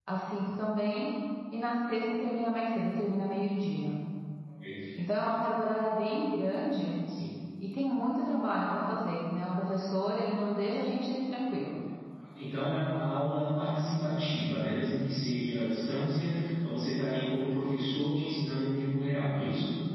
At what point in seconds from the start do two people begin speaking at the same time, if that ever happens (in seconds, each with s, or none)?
none